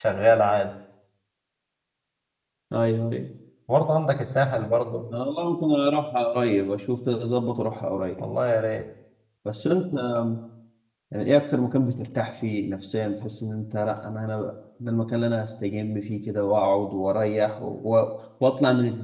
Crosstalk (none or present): none